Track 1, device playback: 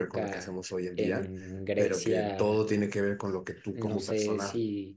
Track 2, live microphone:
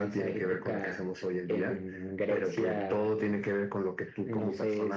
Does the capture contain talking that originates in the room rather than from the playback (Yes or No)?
No